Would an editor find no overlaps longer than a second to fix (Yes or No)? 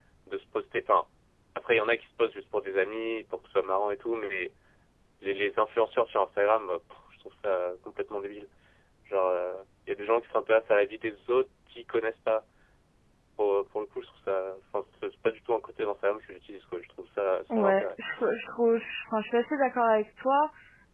Yes